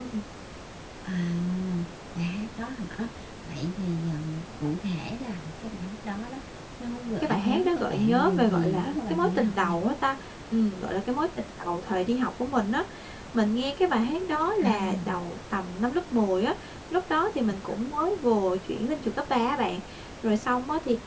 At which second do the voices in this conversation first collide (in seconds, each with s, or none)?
7.2 s